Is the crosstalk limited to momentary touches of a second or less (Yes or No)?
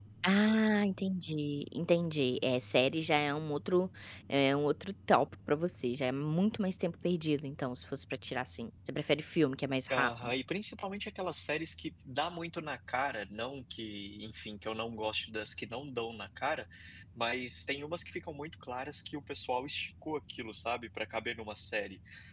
Yes